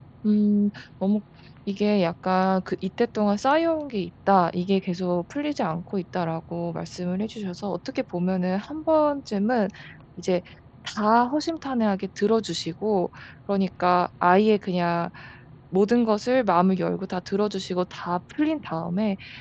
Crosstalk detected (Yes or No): No